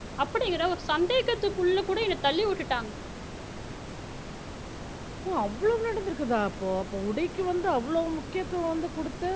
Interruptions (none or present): none